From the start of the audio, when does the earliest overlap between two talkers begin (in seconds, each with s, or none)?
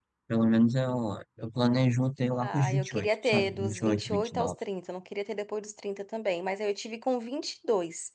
2.4 s